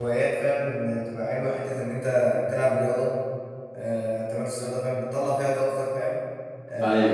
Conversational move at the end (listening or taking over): listening